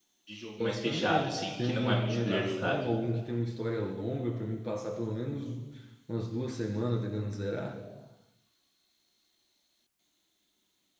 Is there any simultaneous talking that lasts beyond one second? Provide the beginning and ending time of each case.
0.6-2.8

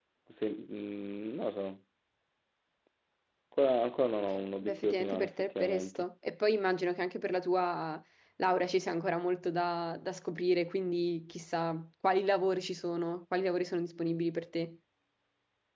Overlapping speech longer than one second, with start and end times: 4.6-6.0

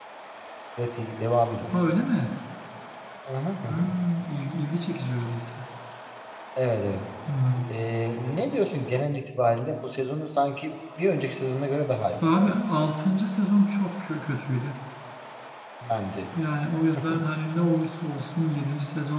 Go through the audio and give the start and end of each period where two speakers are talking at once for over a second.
none

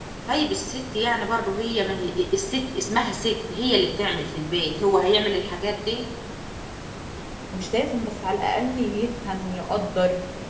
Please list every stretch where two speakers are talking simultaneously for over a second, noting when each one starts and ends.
none

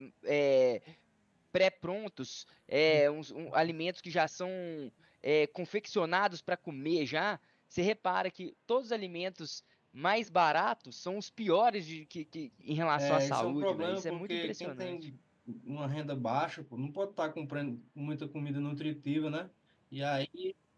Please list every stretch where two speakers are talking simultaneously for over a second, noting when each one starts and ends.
13.0-14.9

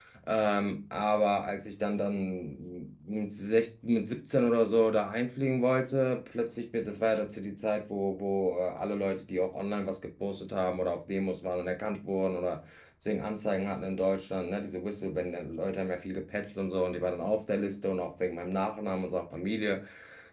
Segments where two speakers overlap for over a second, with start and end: none

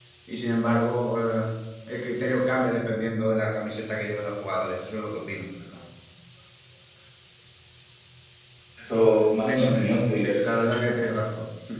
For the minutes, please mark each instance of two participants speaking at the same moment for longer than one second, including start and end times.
9.4-10.8

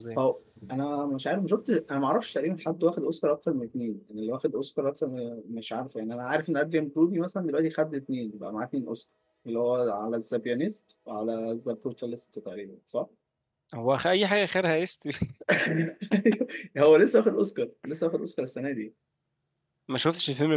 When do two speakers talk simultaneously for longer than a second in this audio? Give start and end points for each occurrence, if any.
none

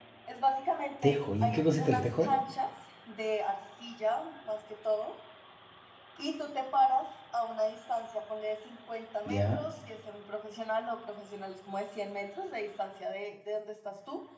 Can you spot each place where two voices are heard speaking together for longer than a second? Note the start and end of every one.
1.0-2.3

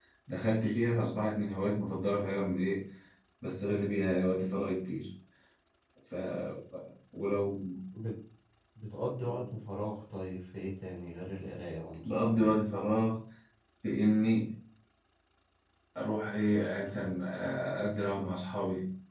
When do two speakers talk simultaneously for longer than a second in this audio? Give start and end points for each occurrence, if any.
none

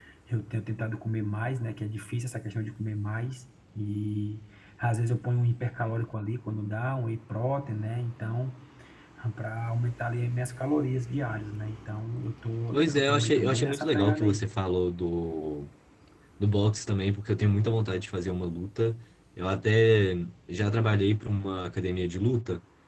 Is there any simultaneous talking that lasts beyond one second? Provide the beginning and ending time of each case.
12.7-14.4

